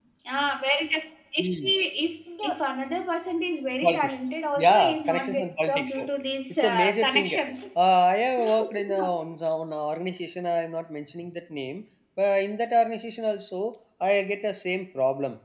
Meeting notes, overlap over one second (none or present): present